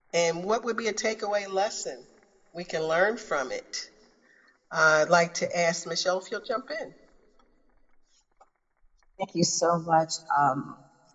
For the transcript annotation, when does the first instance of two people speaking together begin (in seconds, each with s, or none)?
none